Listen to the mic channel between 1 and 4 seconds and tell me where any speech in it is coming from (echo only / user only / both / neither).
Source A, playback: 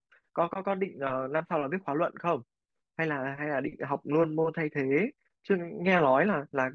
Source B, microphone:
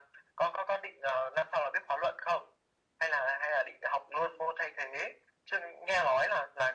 echo only